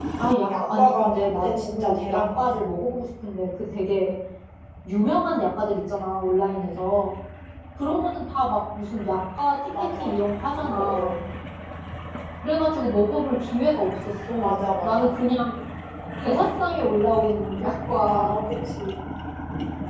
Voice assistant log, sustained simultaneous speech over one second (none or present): present